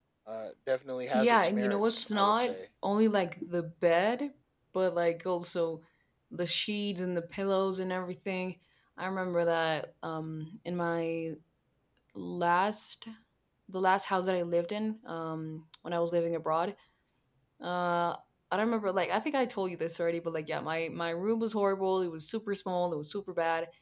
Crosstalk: present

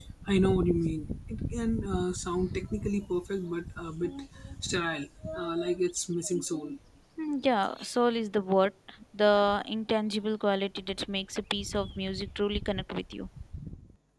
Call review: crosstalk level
none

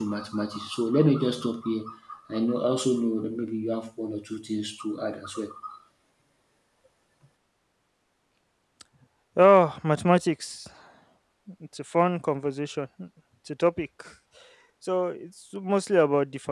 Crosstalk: none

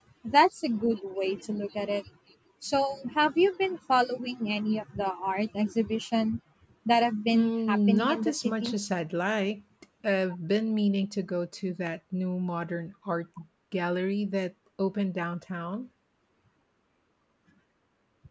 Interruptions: present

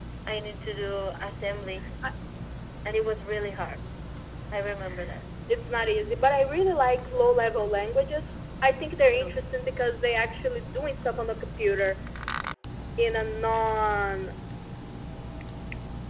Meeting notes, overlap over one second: none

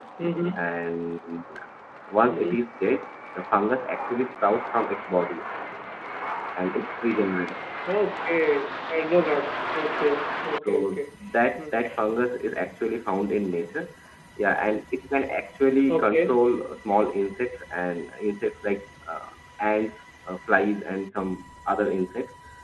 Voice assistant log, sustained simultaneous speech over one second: none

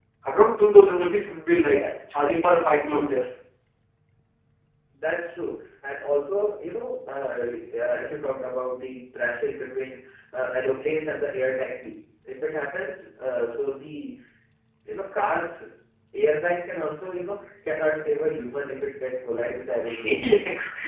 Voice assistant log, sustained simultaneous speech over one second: none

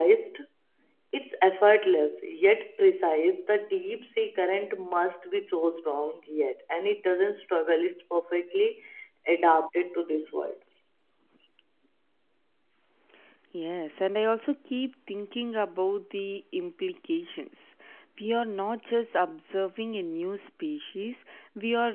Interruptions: none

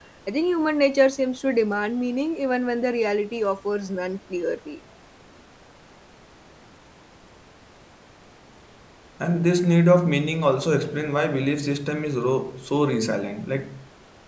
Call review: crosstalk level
none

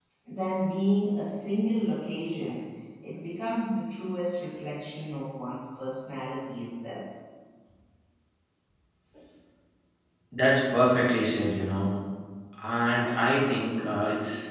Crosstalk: none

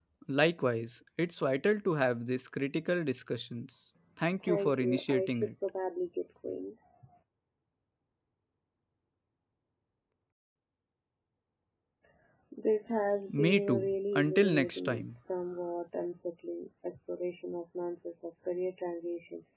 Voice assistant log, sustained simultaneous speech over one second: present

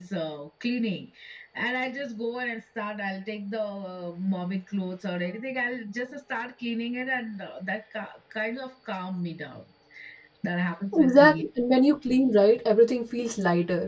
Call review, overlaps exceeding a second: none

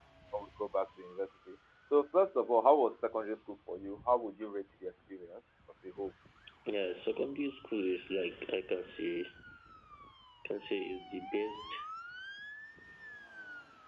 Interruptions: none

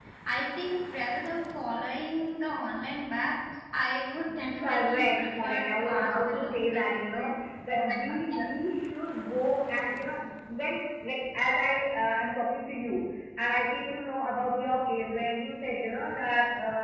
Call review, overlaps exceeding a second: present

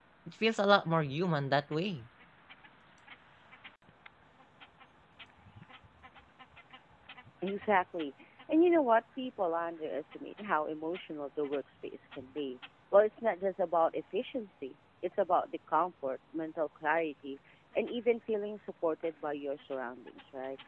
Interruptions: none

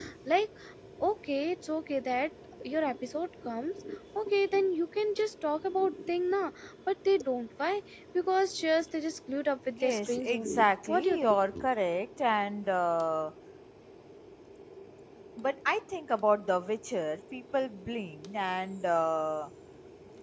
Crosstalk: present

